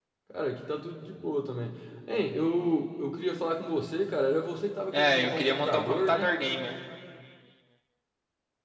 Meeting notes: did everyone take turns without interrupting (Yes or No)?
No